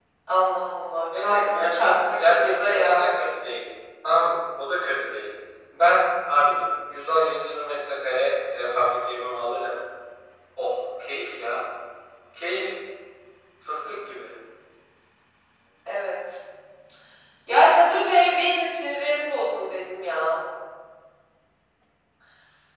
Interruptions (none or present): present